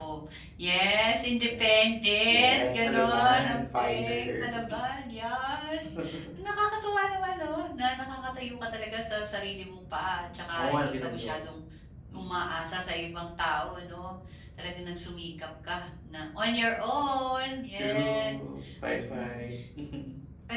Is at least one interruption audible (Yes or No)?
Yes